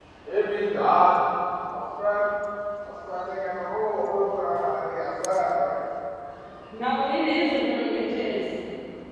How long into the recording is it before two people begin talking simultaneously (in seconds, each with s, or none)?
none